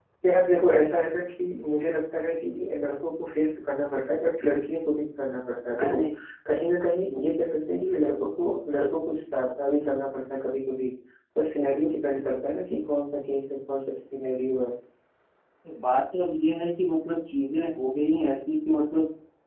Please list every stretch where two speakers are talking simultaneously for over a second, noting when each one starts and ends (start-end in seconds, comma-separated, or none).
none